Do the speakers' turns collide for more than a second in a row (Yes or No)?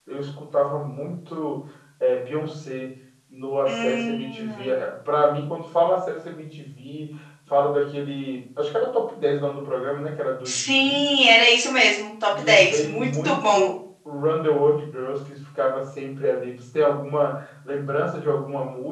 Yes